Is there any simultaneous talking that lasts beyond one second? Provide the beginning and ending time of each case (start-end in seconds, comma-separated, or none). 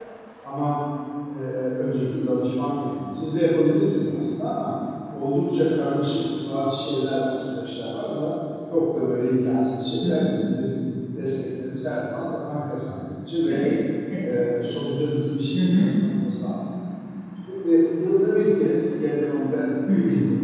none